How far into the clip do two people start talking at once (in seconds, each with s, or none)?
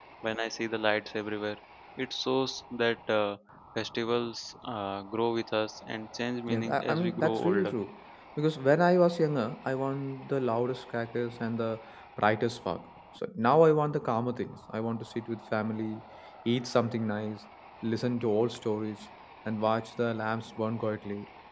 6.5 s